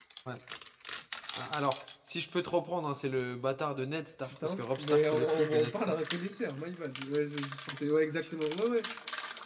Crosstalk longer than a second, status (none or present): present